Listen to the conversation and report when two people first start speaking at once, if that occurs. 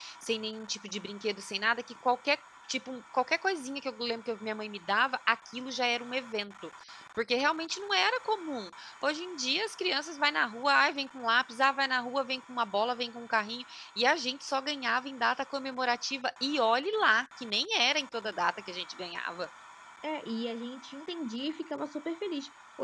none

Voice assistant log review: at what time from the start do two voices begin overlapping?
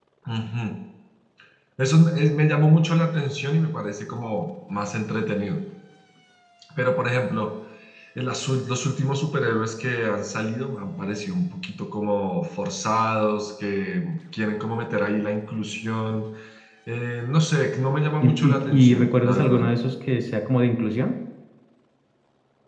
18.2 s

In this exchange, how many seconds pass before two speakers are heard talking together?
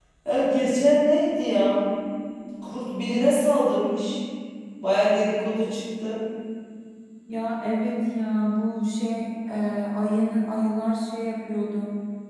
none

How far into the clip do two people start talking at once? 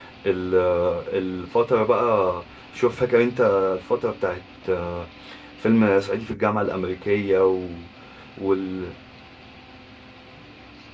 none

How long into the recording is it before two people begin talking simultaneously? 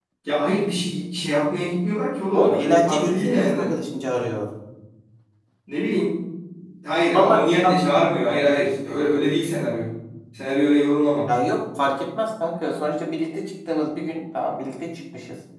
2.3 s

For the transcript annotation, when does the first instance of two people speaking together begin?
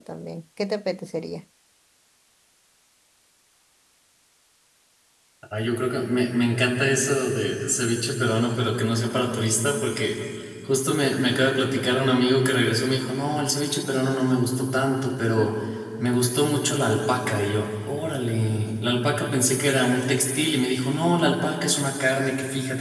none

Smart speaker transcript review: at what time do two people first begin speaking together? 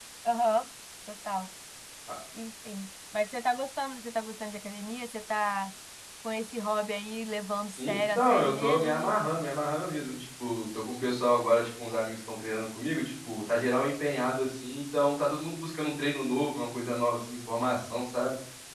7.8 s

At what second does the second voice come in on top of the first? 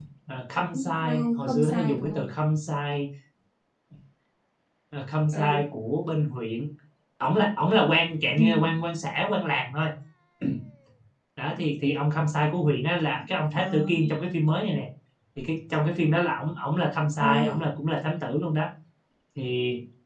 0.7 s

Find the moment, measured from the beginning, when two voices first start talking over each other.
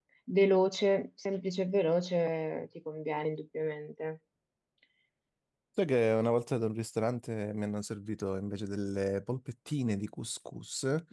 none

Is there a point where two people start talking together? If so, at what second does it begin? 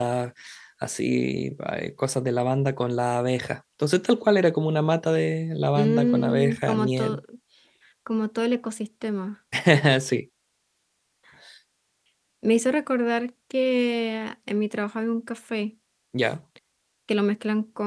5.8 s

